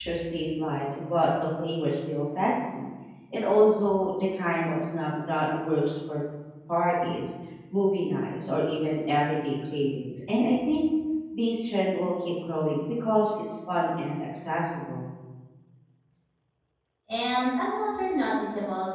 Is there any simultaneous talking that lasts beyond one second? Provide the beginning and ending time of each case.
none

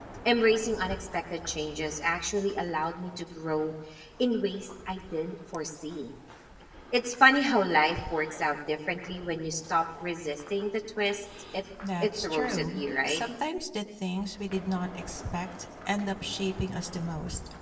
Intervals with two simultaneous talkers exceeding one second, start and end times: 12.0-13.2

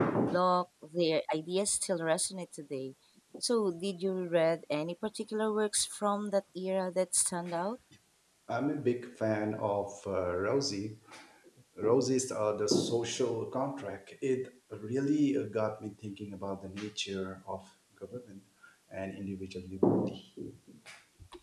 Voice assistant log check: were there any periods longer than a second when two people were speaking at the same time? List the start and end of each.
none

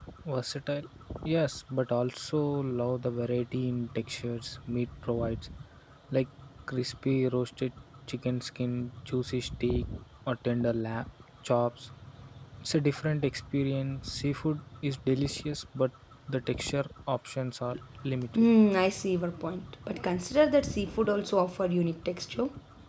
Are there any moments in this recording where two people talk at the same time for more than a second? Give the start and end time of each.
none

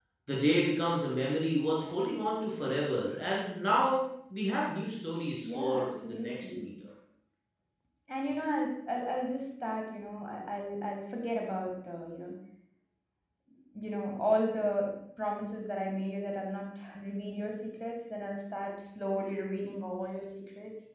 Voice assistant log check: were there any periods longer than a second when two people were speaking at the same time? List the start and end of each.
5.4-6.7

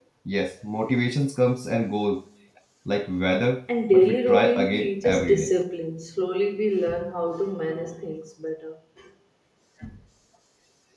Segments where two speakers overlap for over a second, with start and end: 3.9-5.5

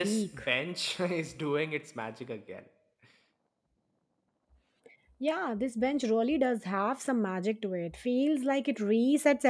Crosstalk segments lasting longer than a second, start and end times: none

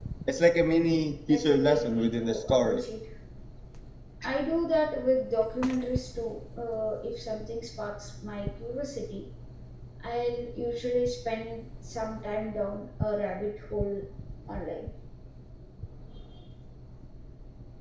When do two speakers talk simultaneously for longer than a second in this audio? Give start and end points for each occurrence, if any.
1.3-2.8

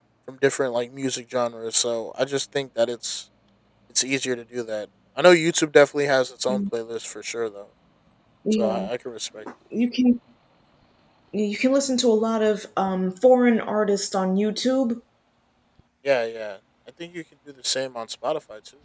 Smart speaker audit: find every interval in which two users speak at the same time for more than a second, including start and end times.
none

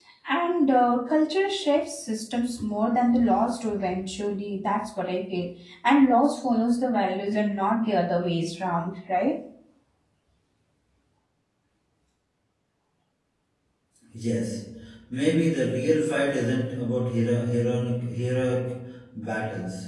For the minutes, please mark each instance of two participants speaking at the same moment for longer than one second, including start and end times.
none

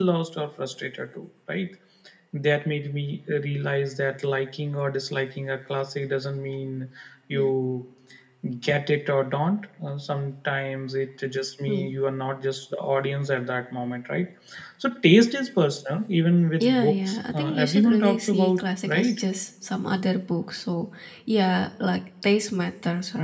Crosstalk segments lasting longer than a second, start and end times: 16.6-19.2

